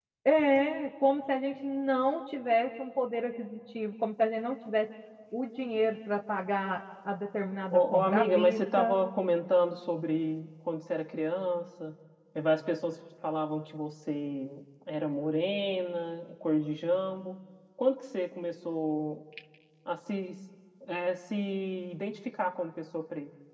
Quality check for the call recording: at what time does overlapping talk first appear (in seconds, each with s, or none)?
7.7 s